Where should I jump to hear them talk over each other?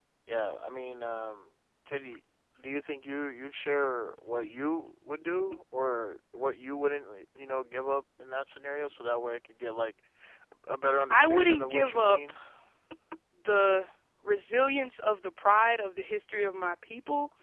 11.1 s

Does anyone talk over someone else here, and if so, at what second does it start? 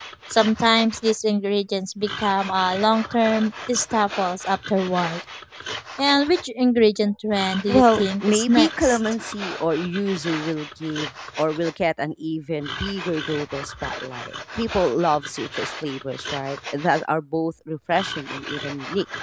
7.7 s

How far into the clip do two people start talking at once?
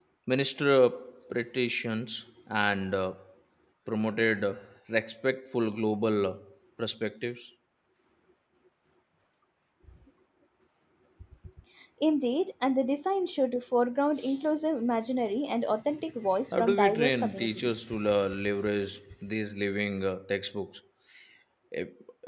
16.5 s

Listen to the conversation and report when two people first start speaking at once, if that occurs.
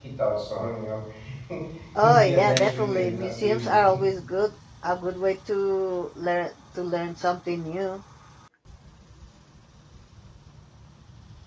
2.0 s

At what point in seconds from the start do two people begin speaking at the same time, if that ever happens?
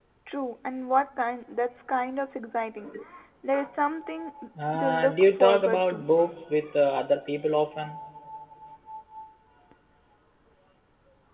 4.8 s

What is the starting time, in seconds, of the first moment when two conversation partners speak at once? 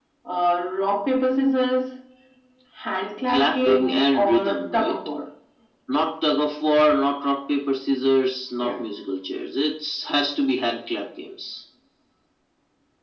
3.3 s

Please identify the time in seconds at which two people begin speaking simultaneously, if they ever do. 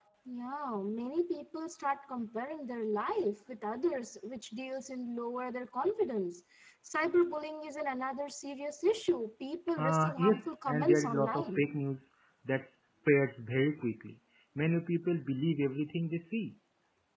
9.8 s

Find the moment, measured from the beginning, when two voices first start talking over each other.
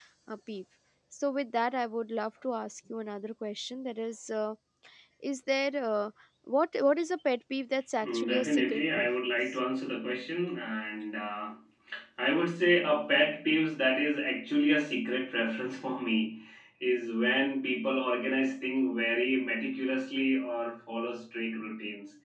8.0 s

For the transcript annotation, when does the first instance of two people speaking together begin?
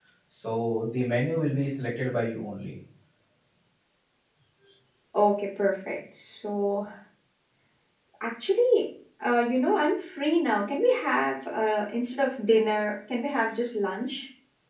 none

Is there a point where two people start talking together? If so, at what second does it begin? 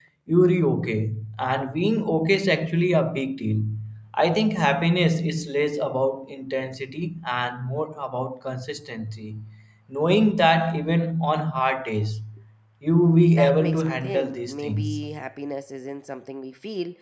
13.3 s

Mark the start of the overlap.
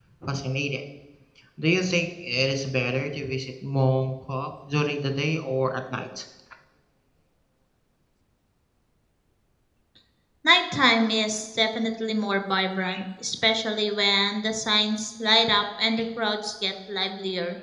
none

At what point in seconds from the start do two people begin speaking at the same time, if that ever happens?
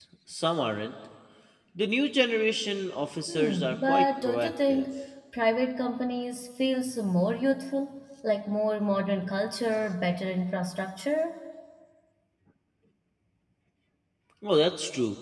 3.3 s

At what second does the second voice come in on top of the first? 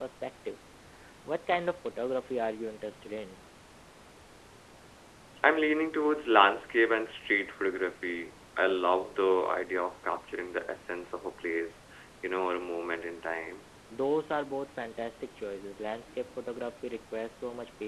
none

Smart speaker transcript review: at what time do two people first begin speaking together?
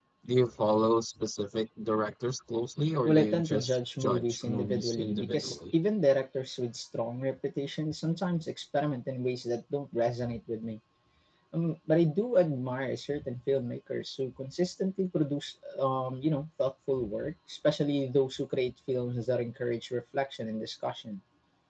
3.0 s

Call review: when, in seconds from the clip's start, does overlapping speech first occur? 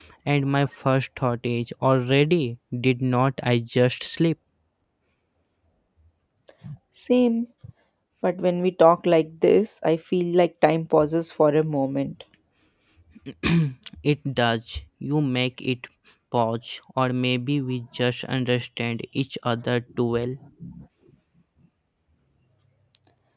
none

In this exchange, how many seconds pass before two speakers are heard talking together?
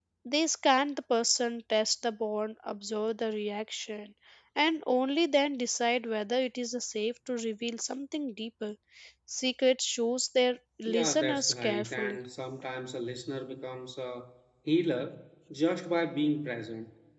10.8 s

